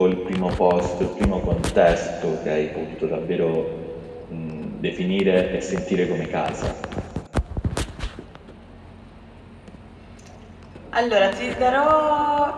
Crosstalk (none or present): none